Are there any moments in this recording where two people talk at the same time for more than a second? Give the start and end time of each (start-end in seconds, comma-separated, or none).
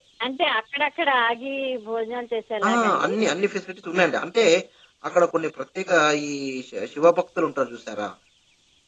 none